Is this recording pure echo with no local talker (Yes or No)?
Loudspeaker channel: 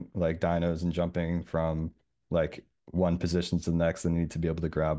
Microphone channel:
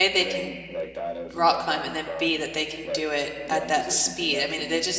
No